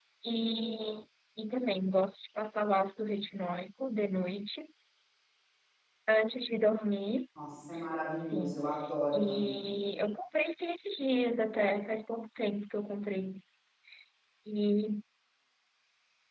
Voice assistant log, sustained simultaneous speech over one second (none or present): none